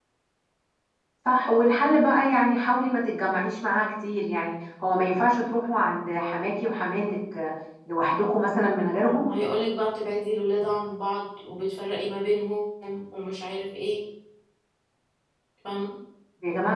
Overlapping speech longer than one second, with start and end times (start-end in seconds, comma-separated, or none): none